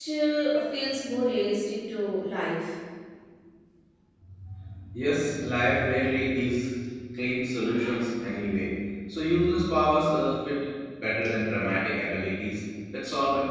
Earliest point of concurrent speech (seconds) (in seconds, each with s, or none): none